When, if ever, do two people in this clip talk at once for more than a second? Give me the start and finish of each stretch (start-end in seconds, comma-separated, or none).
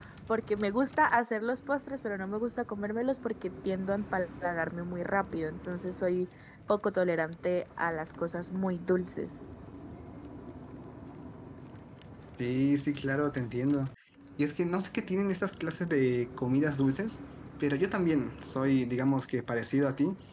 none